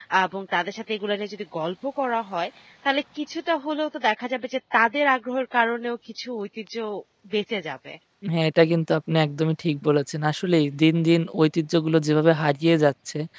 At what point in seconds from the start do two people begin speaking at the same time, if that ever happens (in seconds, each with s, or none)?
none